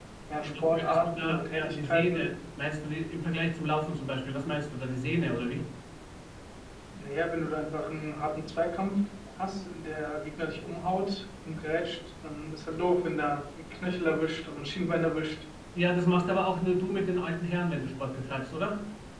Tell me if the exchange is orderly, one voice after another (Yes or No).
No